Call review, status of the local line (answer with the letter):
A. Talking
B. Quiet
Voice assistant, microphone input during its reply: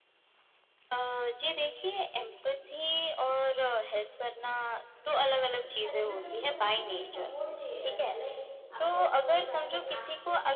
A